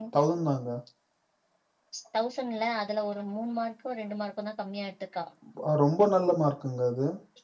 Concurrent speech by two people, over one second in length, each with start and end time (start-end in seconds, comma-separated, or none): none